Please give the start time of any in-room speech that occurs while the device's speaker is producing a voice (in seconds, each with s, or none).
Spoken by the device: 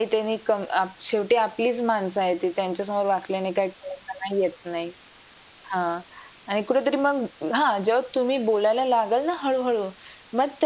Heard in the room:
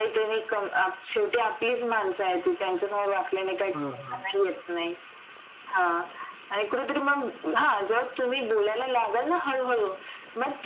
3.7 s